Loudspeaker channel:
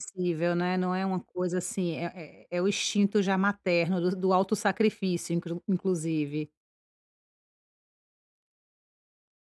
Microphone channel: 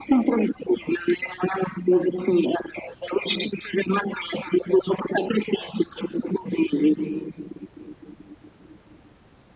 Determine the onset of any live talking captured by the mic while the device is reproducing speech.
none

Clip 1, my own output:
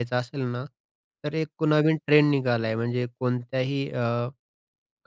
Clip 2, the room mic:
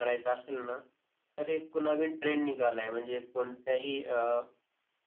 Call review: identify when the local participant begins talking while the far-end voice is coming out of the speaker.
none

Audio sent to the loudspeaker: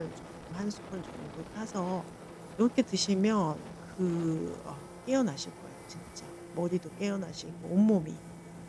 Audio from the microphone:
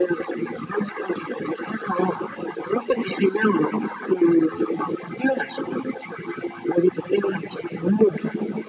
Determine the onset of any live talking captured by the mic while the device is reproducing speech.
none

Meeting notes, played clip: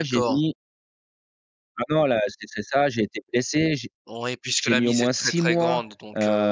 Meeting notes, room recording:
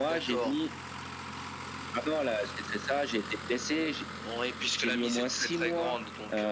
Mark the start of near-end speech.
none

